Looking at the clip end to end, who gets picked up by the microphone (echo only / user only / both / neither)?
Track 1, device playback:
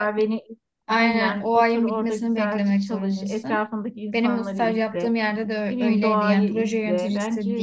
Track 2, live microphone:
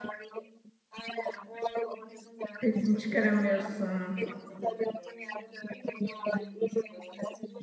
both